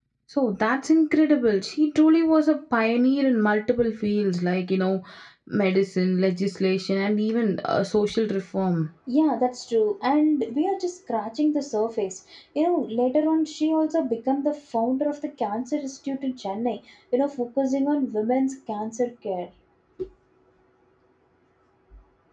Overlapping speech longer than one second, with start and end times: none

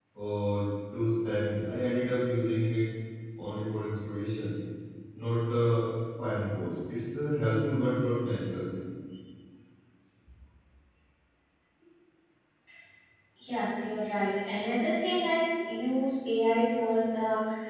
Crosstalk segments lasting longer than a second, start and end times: none

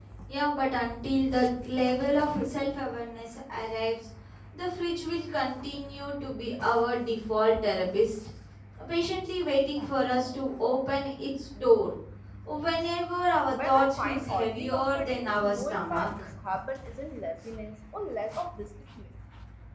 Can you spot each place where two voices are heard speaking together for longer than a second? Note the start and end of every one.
13.5-16.3

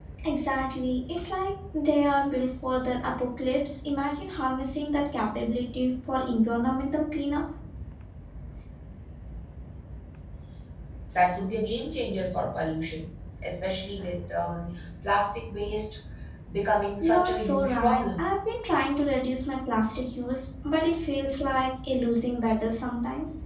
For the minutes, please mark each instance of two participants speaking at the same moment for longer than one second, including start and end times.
17.0-18.3

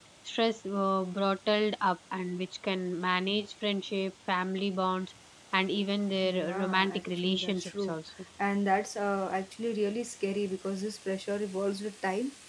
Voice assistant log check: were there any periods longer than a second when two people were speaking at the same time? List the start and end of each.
6.3-8.0

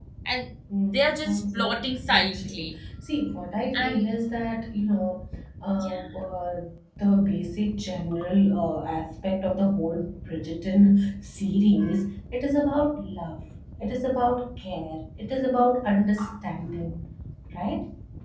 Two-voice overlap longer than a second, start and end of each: 0.8-2.7

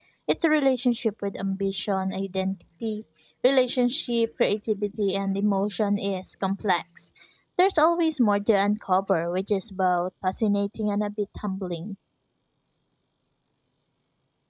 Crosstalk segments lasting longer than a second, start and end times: none

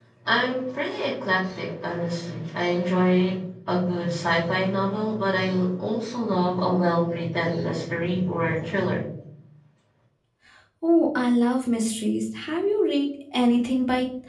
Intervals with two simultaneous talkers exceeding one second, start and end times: none

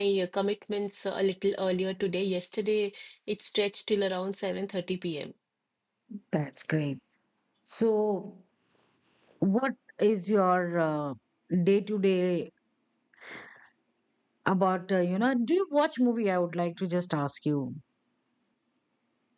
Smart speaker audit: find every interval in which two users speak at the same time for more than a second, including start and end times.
none

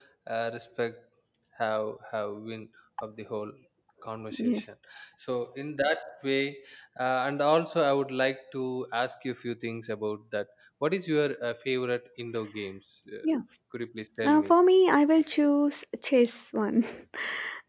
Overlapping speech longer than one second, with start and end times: none

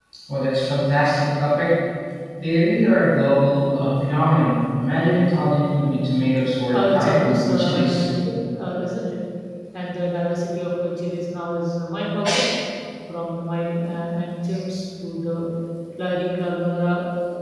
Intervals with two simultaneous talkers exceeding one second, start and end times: 6.7-8.0

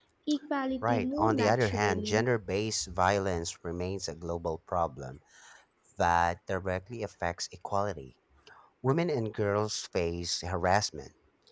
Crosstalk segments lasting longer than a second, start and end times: 0.8-2.2

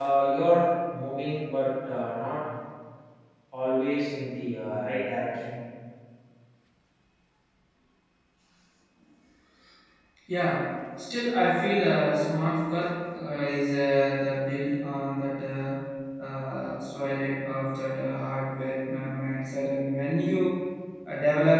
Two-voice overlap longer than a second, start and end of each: none

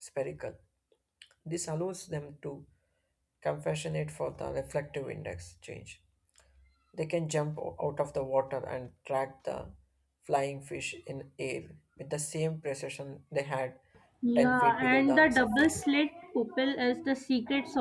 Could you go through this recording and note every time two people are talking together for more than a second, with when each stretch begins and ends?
14.4-15.8

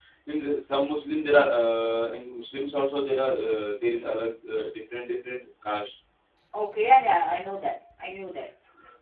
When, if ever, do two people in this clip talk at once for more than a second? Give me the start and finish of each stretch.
none

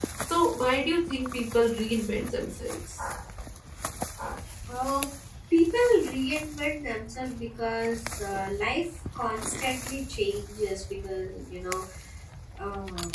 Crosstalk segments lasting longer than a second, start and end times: none

